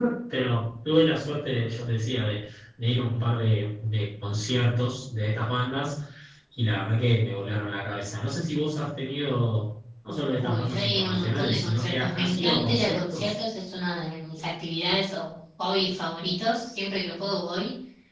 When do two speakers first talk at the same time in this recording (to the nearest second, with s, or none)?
10 s